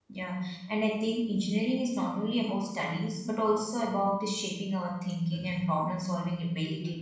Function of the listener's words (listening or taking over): taking over